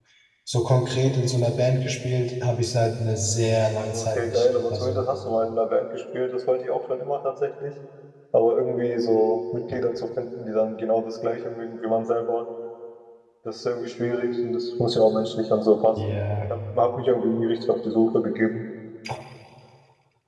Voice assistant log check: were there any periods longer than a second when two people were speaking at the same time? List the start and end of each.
3.9-5.1

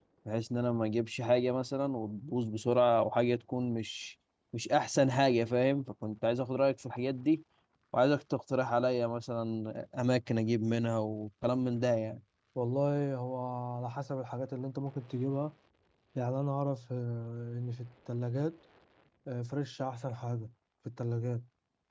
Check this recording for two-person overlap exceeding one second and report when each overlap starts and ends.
none

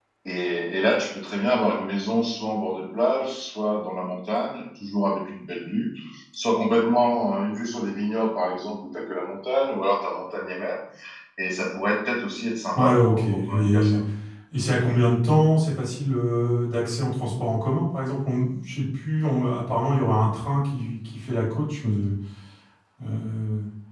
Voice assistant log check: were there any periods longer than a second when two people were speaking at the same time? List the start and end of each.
12.8-14.0

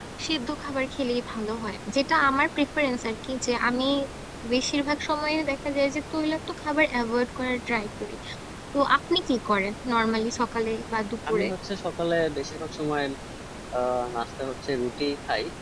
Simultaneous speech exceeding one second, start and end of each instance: none

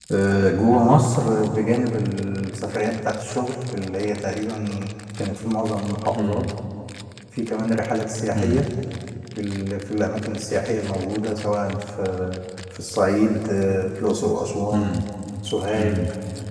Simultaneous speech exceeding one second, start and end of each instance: none

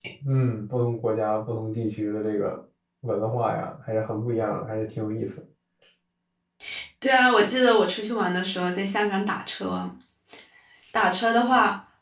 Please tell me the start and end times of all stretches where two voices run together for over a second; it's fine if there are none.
none

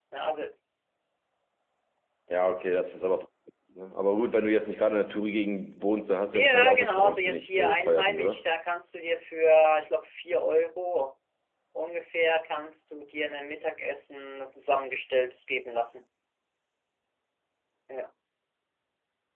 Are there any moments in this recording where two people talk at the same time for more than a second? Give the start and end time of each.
6.3-8.4

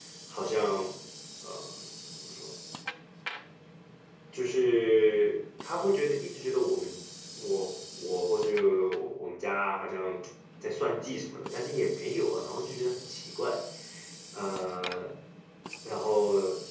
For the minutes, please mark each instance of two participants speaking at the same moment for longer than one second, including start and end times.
none

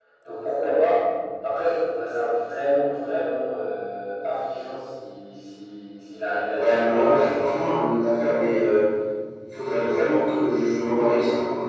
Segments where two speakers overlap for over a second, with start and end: 6.5-7.8

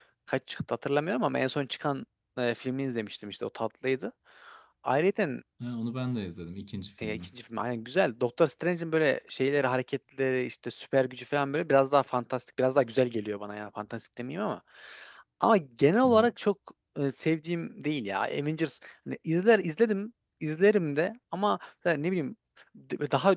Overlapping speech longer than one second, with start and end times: none

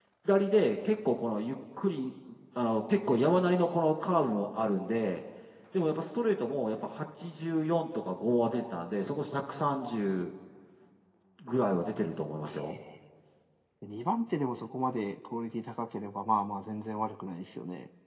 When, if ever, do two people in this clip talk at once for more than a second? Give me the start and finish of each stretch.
none

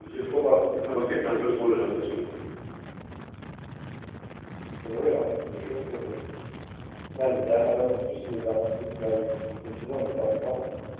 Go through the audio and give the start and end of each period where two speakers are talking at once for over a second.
none

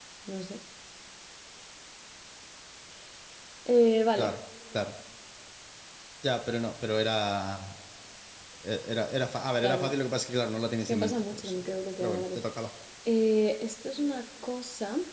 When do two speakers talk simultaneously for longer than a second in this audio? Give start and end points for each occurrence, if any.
10.8-12.4

